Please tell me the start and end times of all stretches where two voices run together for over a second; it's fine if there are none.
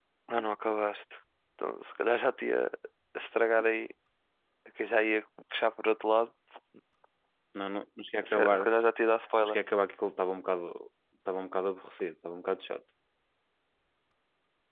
none

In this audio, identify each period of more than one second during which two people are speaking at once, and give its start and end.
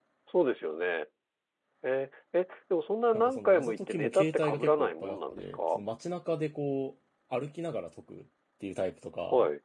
3.1-5.8

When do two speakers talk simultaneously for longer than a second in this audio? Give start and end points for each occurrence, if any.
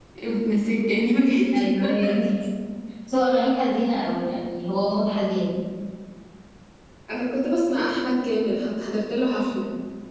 none

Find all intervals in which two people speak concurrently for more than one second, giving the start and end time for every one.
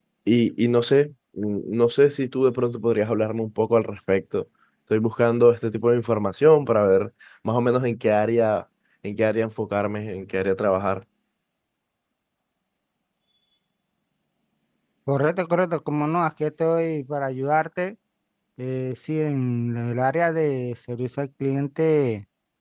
none

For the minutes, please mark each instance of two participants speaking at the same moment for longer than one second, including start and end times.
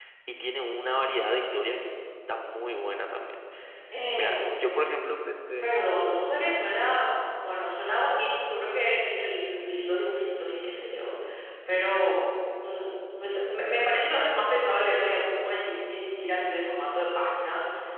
none

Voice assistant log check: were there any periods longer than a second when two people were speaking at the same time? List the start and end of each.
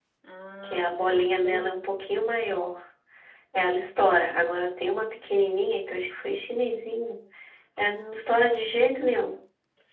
0.6-2.0

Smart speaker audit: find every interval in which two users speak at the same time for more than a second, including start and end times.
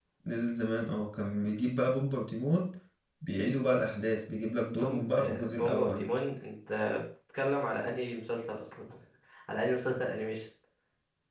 4.8-6.1

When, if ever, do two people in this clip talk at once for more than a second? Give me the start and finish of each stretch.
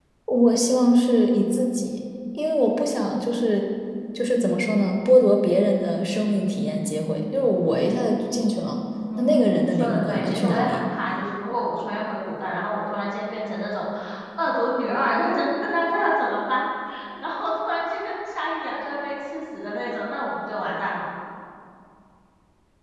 9.2-10.8

